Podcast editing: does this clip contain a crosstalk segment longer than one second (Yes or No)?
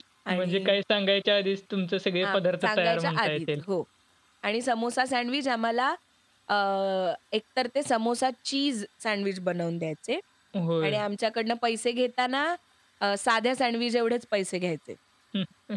Yes